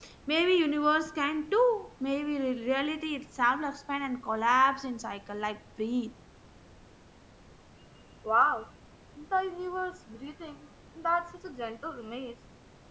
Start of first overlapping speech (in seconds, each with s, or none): none